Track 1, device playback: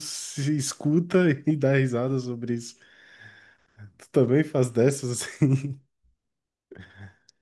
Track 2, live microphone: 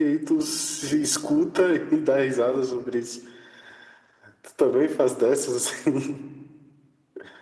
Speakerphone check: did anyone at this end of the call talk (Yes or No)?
No